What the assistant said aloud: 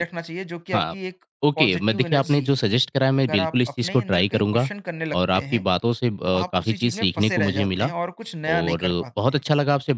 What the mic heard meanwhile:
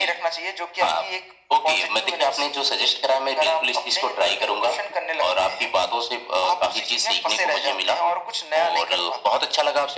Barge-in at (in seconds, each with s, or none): none